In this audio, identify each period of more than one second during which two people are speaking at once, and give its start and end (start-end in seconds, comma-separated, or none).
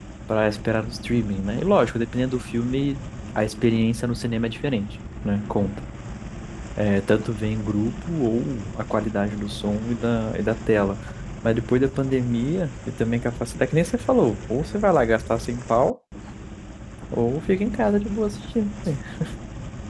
none